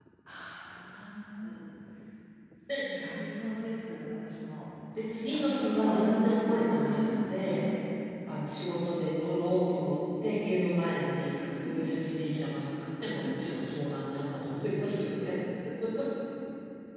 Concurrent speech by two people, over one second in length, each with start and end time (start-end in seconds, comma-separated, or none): 5.2-7.3